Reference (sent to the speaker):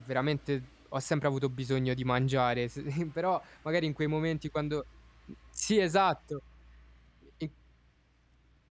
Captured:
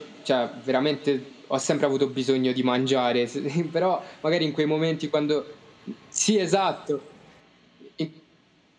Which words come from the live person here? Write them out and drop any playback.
none

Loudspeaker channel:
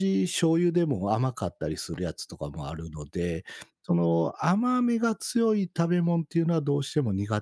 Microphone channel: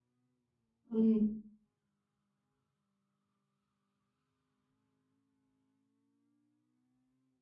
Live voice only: うん。

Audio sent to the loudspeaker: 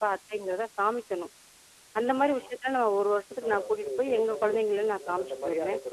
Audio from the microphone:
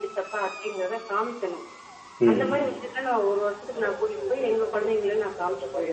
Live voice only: ம்.

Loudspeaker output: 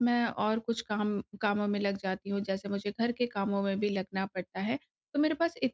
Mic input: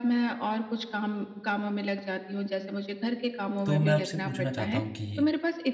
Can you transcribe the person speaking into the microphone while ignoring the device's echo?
तो मैं आपसे पूछना चाहता हूँ कि,

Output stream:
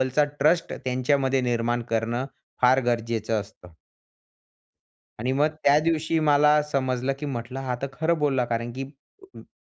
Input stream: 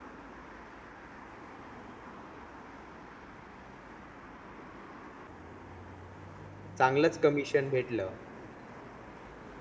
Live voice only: चांगलंच कमिशन भेटलं

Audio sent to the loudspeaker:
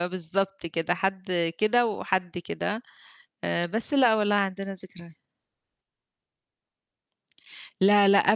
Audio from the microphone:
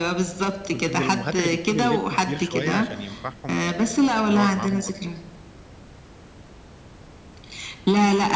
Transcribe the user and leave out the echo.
كنتِ من الأمهات اللي بتجيب اللبس كبير شوية عشان ينفعهم في ال ويقعد معاهم أكتر؟

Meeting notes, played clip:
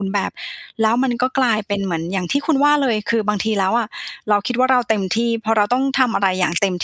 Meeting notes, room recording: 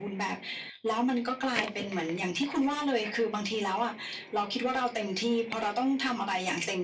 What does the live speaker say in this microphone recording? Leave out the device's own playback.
none

